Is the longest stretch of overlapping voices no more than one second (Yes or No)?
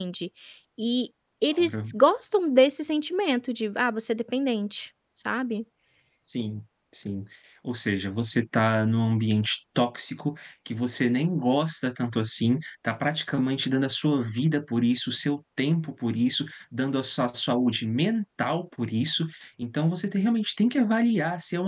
Yes